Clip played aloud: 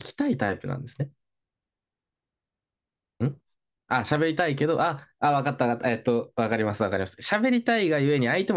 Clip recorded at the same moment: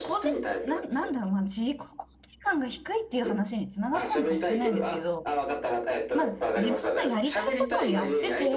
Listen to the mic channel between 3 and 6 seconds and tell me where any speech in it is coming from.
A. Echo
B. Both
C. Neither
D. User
B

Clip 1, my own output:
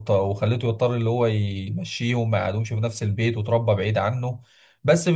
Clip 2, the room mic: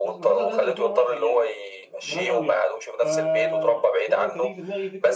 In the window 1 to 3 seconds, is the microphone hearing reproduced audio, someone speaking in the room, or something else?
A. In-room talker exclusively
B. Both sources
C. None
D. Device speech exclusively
B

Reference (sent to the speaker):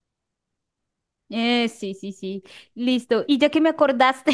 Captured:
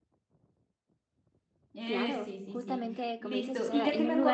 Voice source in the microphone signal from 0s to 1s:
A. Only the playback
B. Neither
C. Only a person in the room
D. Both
B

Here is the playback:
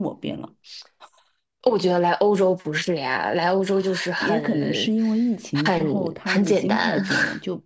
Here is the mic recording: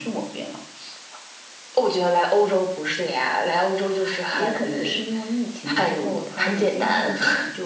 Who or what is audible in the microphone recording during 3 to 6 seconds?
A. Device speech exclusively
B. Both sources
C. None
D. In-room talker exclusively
A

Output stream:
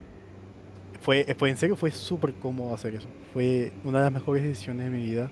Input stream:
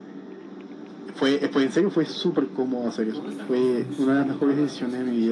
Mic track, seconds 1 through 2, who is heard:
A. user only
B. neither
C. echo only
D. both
C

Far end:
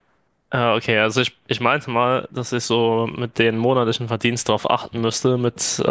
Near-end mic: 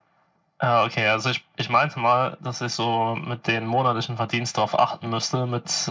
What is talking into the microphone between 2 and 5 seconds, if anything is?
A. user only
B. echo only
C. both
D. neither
B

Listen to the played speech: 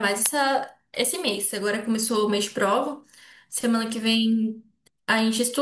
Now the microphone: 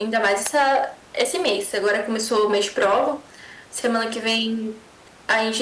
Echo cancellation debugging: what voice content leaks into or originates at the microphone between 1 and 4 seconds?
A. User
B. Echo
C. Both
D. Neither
B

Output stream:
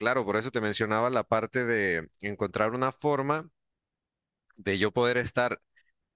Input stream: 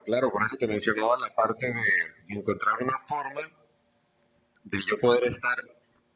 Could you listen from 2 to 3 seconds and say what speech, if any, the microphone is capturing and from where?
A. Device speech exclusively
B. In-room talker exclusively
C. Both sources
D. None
A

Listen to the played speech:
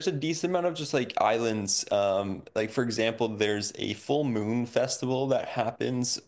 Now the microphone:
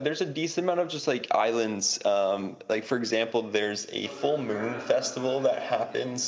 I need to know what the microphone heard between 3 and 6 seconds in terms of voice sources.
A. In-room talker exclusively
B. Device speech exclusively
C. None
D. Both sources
D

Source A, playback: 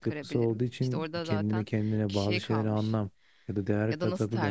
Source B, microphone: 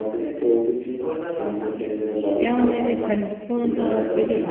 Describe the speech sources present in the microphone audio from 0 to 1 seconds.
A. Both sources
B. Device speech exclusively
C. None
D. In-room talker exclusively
B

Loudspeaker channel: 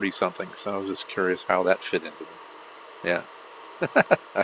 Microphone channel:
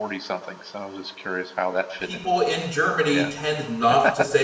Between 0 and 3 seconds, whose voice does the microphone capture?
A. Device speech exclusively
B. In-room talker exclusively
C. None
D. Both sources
D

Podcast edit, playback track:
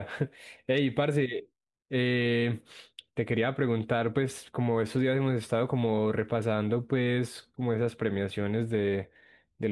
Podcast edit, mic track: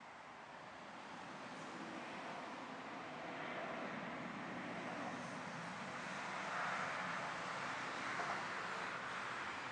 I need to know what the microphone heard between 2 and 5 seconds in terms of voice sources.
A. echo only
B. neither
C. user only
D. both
B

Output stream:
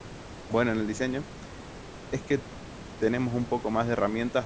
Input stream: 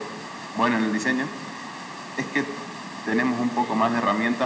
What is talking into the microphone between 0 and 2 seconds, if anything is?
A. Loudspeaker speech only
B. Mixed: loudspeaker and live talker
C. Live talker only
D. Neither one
A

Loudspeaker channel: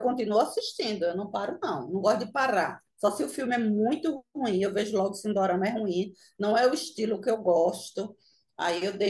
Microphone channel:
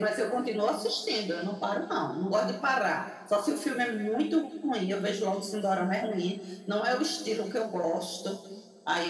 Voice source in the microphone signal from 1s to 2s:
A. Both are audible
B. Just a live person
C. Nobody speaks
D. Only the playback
D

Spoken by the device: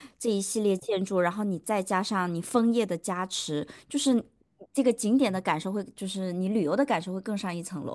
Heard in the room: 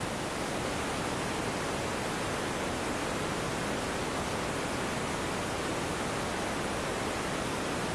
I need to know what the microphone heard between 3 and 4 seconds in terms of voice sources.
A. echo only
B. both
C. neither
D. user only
C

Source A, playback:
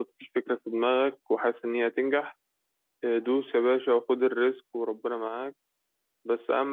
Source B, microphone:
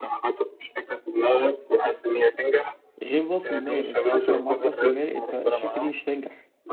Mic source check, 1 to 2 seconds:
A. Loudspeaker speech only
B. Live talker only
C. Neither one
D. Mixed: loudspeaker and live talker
A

